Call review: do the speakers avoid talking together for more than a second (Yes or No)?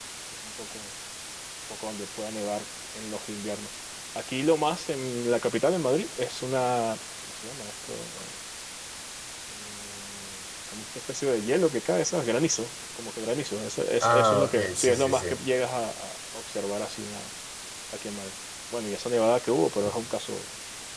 No